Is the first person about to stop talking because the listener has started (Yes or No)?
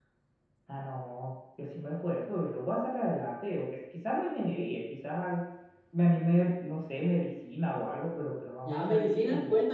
Yes